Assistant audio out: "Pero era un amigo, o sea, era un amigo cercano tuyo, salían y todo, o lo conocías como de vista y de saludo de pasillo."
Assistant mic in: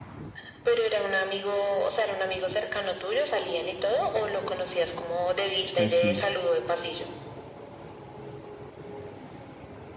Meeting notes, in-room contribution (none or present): present